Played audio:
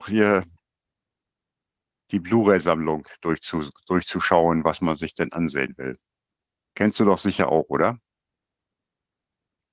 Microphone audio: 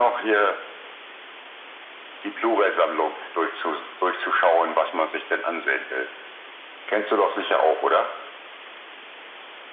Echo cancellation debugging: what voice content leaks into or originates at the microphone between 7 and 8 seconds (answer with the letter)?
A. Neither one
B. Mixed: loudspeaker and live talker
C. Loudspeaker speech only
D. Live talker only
C